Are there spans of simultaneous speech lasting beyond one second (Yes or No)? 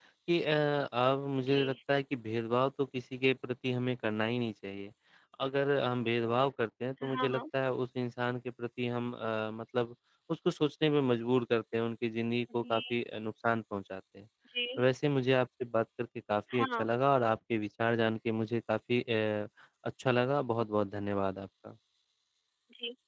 No